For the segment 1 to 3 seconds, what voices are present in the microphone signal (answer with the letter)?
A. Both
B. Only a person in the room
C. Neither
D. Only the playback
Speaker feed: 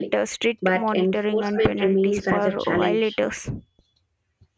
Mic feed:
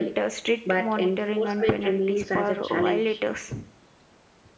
D